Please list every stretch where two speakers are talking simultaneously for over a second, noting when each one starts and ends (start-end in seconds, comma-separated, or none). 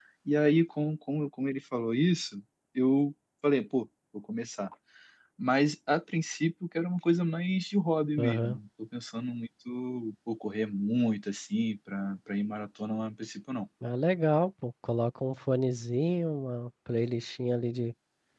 none